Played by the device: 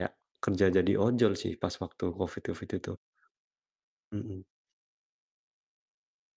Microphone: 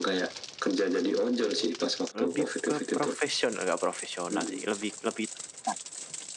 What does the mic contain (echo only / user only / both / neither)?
both